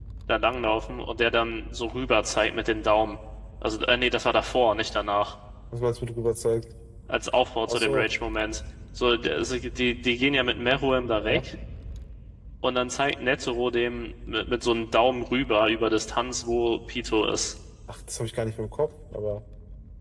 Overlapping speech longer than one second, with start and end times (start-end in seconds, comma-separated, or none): none